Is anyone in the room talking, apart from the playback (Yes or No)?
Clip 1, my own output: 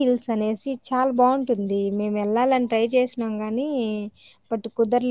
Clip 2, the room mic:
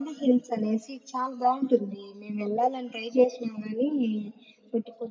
No